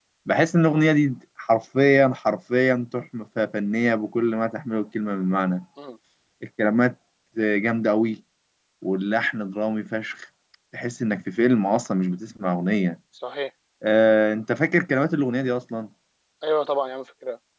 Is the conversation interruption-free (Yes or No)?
Yes